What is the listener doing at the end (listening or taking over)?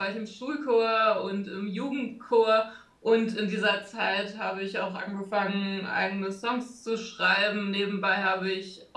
listening